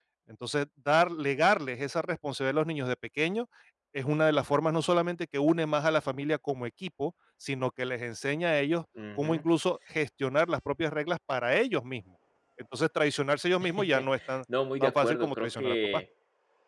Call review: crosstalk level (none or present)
present